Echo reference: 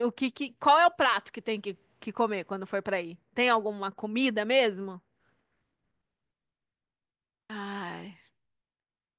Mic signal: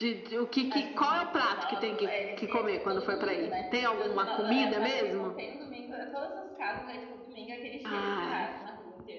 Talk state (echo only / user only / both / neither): both